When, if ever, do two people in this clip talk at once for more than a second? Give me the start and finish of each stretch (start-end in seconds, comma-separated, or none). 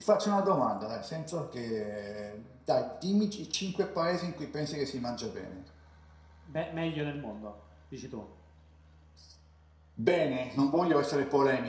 none